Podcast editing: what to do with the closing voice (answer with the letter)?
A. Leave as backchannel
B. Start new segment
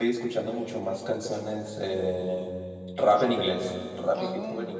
A